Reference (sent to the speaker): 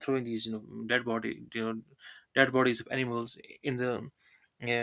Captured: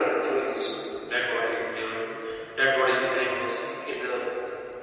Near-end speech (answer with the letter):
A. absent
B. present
A